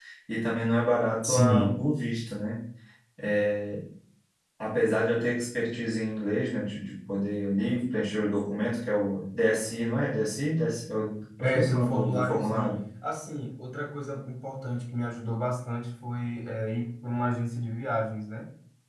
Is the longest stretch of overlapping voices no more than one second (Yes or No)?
No